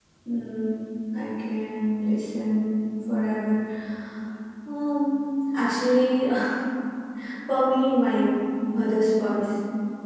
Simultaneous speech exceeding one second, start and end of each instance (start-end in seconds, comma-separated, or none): none